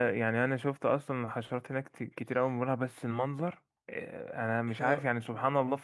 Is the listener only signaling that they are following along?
Yes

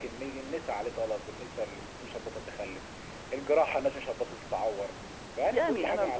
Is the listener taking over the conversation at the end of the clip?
Yes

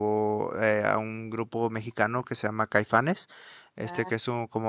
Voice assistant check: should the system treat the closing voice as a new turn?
No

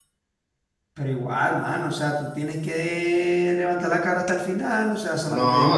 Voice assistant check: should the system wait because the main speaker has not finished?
No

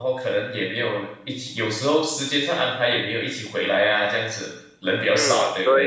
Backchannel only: No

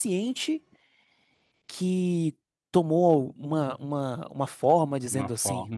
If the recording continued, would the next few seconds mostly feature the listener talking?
Yes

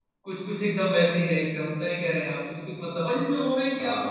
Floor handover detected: No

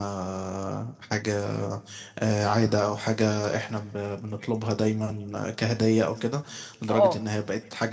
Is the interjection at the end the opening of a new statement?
No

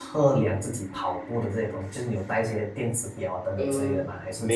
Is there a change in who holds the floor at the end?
Yes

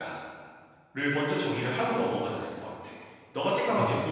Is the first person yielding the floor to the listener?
No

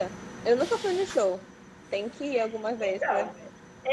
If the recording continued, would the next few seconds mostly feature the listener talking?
Yes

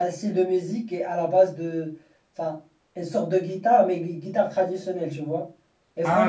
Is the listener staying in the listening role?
No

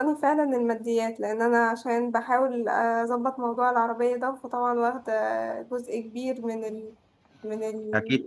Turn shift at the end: Yes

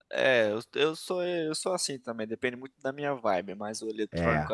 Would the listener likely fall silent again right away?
Yes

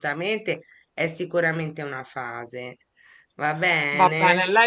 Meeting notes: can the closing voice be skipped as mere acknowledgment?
No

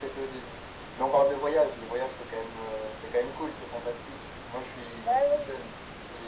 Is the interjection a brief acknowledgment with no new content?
Yes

